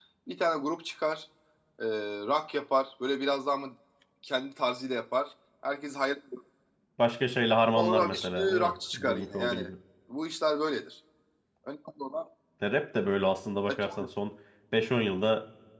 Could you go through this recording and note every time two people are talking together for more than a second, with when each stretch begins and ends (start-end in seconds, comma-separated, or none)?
7.8-9.6